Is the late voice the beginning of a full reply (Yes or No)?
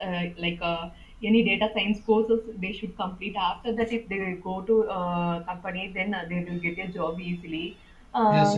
Yes